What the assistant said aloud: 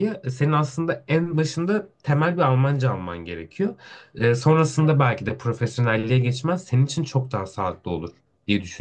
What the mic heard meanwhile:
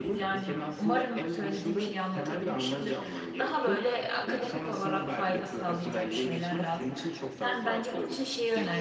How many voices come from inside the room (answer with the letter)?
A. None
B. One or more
B